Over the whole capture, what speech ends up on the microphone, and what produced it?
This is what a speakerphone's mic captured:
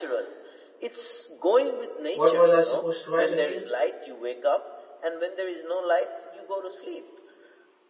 both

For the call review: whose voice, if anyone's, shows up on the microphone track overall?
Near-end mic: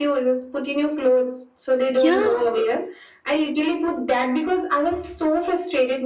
both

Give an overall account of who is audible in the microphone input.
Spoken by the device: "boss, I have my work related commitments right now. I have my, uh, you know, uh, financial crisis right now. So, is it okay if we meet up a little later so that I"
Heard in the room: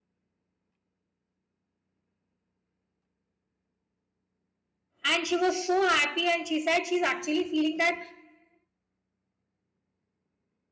user only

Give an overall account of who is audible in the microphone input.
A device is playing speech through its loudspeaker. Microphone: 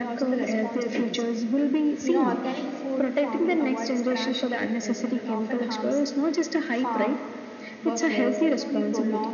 both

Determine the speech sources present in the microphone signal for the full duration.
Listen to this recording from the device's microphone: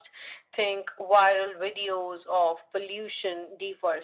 echo only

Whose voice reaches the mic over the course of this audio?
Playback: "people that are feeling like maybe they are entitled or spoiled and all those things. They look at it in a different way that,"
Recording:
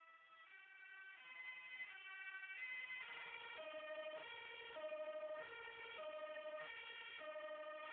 neither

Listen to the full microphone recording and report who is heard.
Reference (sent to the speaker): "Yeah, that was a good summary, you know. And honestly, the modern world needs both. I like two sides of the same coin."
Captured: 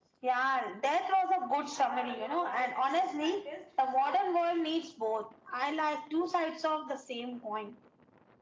both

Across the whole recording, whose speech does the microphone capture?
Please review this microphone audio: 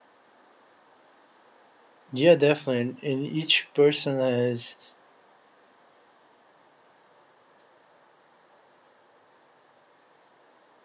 user only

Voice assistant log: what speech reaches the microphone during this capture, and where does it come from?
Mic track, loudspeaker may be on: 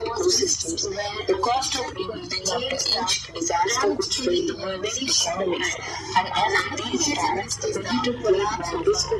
echo only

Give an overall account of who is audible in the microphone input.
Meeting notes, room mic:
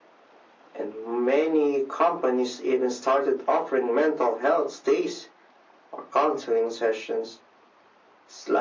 echo only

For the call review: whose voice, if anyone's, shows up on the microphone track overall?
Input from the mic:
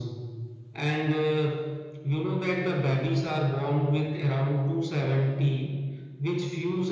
echo only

